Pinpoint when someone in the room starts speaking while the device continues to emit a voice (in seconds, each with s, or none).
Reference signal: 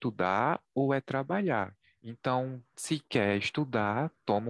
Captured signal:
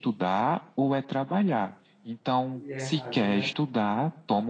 2.5 s